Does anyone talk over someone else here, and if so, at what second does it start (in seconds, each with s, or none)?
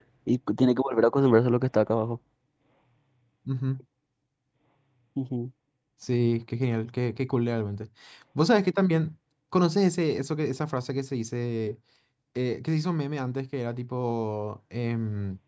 none